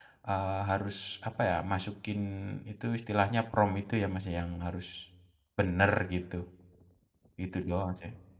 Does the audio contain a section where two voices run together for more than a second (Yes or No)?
No